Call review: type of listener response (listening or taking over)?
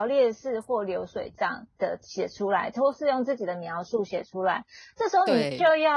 listening